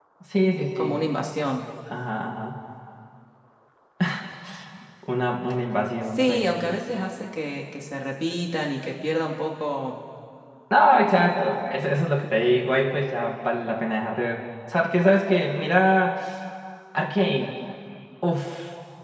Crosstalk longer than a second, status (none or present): none